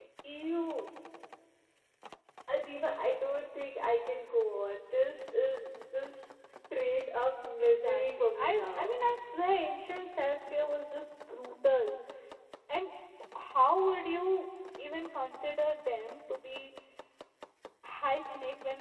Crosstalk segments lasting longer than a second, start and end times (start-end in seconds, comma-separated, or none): 7.6-9.0